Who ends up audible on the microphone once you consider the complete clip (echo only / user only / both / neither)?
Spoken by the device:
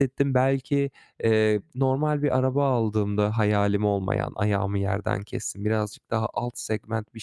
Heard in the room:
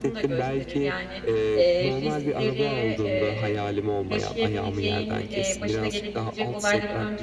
both